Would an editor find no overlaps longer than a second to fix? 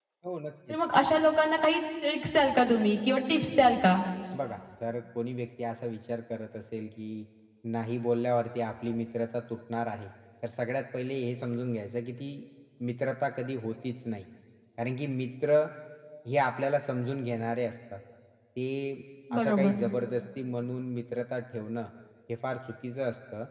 Yes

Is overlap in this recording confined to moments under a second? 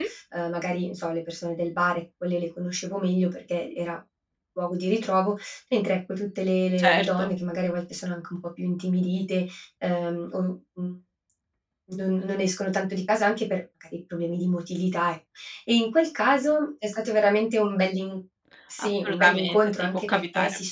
No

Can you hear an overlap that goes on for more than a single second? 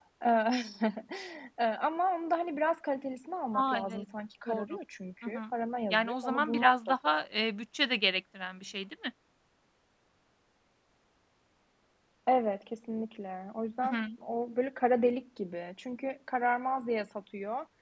Yes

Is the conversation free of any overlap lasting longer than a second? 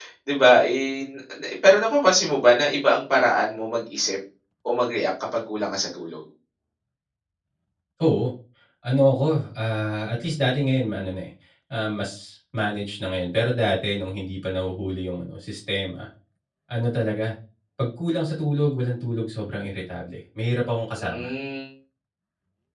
Yes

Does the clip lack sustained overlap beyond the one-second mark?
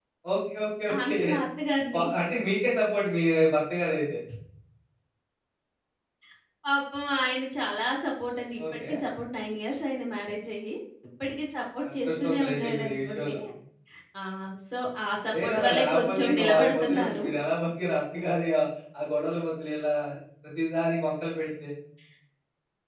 No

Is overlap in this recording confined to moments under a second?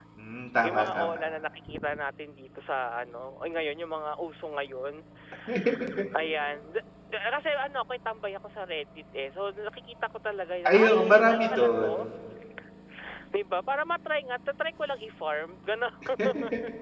No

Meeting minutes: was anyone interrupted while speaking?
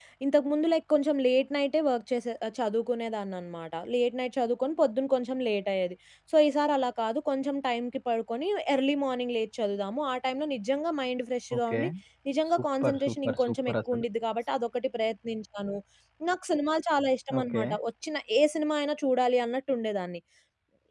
Yes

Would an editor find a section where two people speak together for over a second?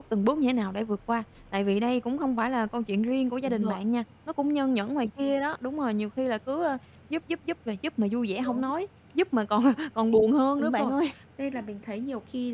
No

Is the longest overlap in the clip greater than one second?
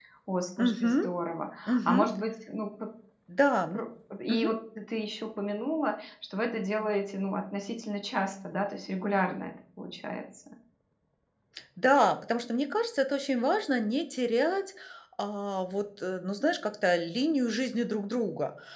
No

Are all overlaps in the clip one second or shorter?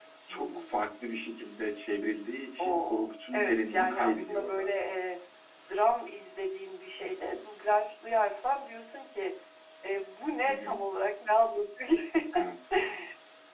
No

